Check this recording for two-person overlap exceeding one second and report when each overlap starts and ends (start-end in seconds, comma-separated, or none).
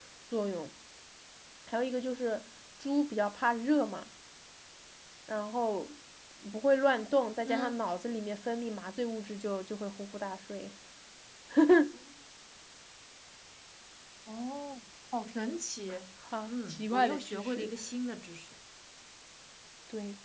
16.5-17.7